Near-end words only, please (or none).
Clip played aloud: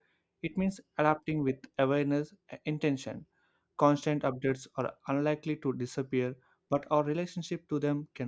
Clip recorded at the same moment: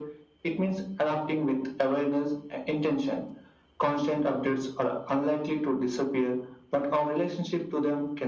none